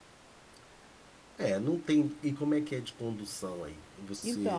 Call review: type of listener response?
taking over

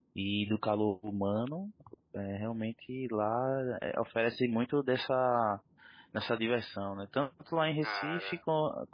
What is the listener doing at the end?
listening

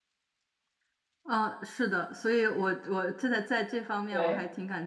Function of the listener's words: listening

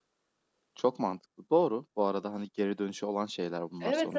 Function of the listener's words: taking over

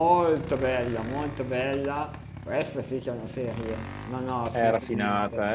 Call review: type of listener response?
taking over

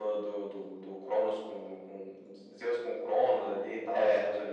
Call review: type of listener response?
listening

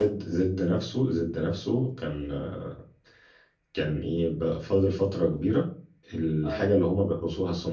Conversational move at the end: listening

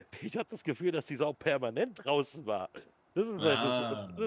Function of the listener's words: listening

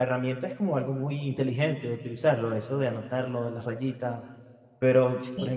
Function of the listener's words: listening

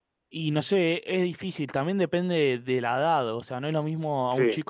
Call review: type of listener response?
listening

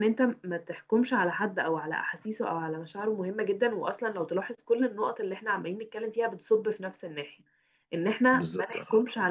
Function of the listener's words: listening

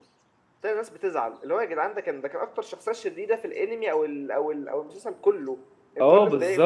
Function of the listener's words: taking over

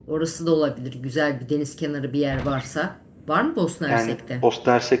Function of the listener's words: taking over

